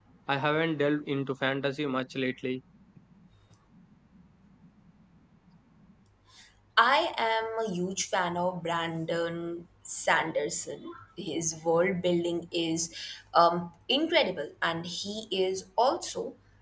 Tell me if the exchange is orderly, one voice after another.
Yes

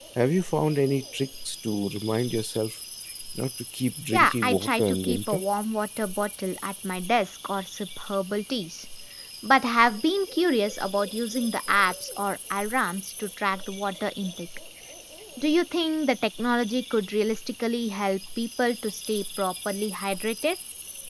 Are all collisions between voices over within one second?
No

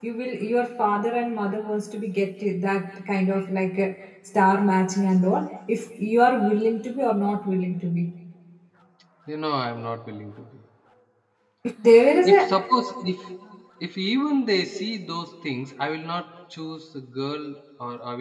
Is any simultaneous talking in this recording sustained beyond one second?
No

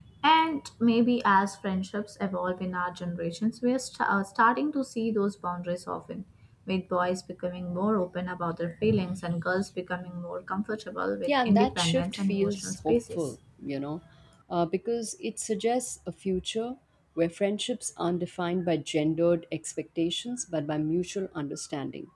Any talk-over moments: Yes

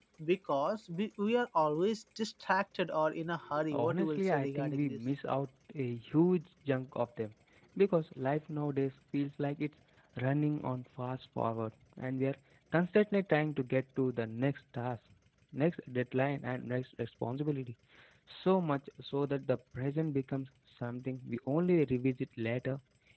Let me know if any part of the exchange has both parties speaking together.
Yes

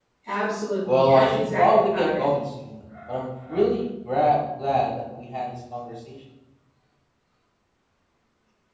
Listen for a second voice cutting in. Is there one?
Yes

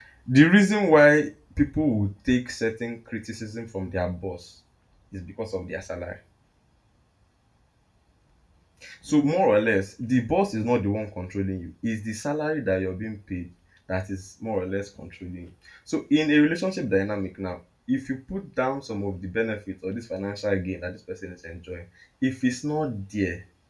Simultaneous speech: No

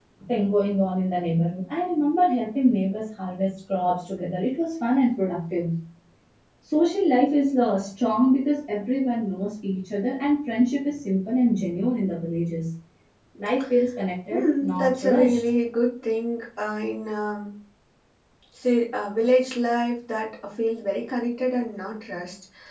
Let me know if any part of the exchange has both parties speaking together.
Yes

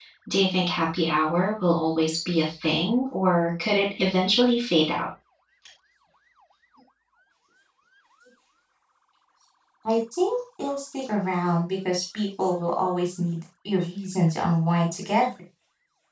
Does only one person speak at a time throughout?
Yes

